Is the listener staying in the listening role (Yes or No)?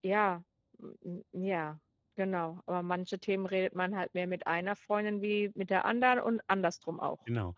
No